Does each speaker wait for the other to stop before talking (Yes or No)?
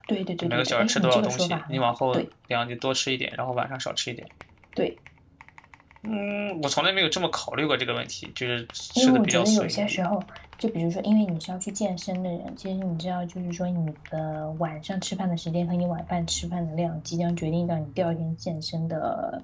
No